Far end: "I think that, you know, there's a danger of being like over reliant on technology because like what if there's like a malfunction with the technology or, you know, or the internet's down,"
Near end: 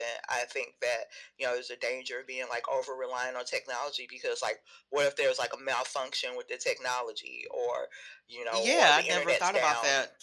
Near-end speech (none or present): present